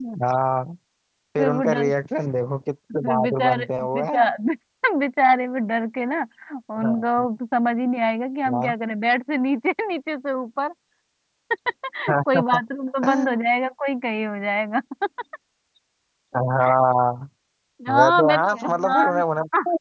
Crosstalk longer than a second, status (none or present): present